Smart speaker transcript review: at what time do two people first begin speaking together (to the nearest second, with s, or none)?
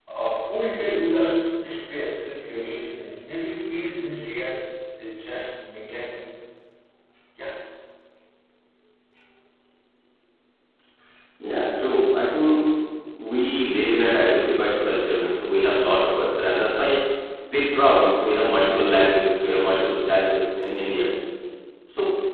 none